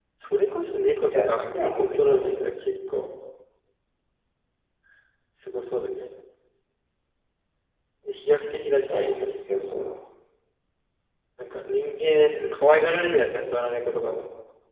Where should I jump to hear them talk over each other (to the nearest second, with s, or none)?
1 s